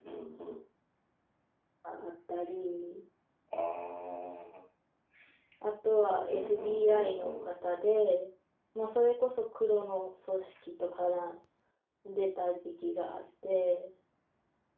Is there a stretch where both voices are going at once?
Yes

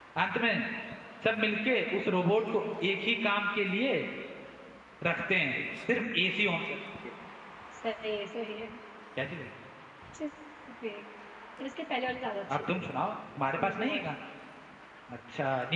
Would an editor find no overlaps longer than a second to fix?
Yes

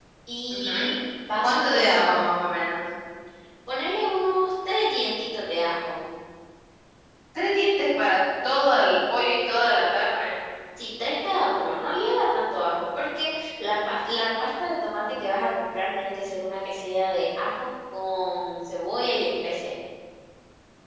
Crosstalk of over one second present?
No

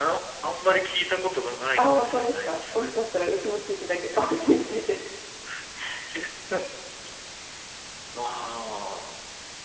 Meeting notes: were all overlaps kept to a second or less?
No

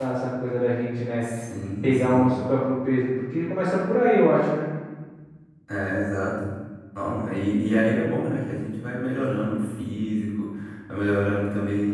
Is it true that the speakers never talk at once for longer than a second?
Yes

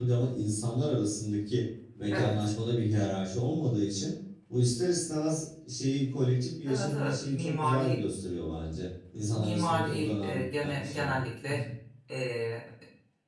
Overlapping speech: Yes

